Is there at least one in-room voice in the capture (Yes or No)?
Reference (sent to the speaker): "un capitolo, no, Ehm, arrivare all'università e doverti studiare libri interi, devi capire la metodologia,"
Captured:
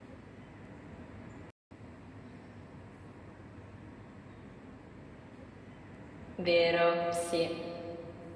Yes